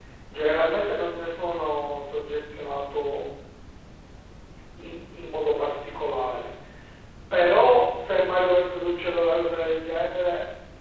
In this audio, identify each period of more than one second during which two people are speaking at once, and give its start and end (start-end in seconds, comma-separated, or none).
none